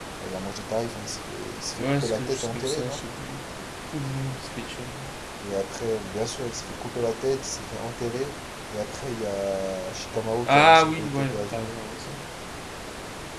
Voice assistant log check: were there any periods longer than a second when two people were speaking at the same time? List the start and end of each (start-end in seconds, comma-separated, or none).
1.7-3.0, 10.5-11.7